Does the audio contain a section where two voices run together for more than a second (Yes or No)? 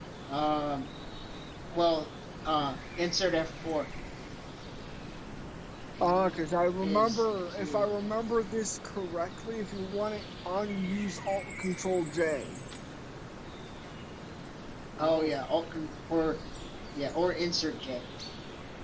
Yes